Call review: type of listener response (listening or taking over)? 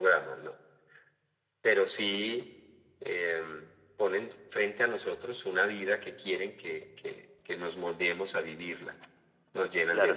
taking over